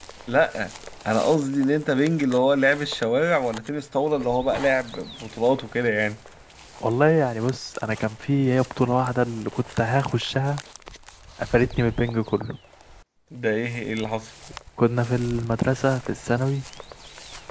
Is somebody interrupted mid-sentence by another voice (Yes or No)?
No